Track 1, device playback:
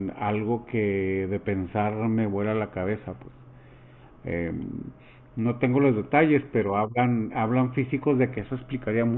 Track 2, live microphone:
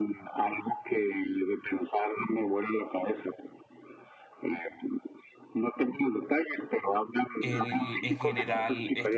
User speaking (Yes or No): Yes